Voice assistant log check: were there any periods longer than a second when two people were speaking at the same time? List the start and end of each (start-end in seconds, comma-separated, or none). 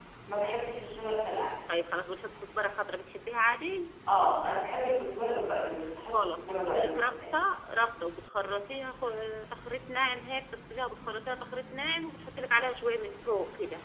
6.1-7.5